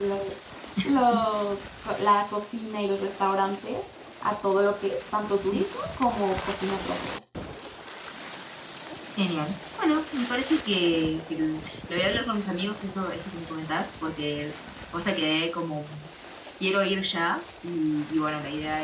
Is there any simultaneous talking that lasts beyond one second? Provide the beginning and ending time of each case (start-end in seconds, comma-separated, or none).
none